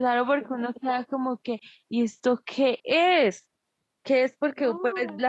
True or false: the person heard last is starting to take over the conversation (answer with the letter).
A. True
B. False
B